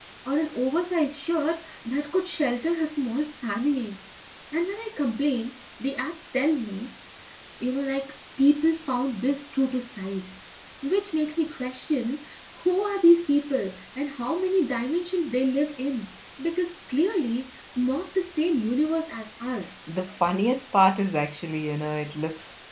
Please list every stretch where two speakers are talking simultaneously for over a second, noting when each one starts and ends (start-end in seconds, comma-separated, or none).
none